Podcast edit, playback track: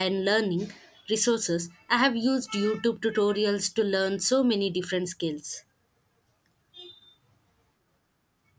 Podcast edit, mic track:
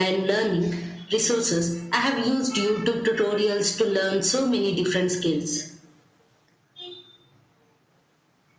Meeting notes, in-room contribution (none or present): none